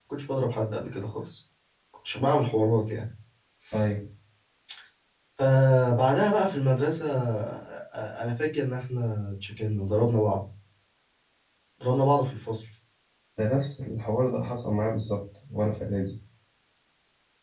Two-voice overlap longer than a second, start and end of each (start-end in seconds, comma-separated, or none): none